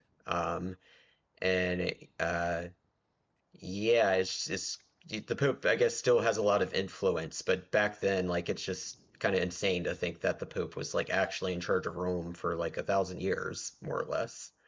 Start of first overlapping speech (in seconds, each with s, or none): none